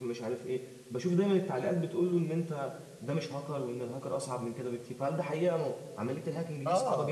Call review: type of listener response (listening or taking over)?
taking over